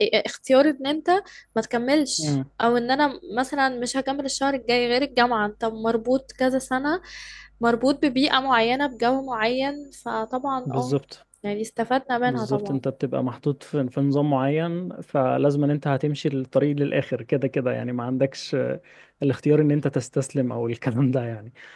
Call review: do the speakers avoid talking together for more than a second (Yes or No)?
Yes